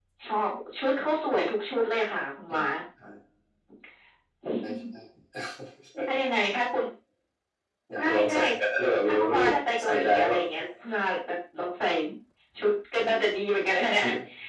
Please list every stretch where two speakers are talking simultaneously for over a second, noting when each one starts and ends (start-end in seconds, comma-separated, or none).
9.1-10.4